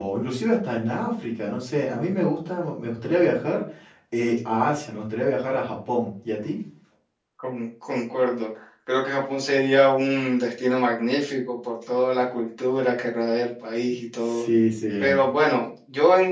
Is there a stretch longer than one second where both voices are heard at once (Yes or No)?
No